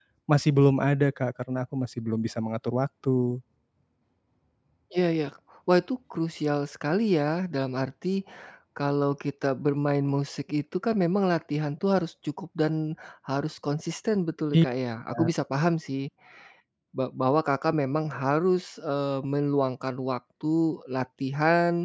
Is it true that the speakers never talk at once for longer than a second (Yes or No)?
Yes